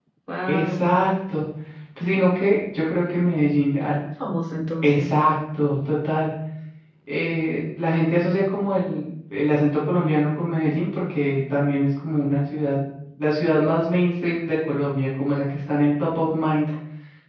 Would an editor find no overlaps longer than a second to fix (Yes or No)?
Yes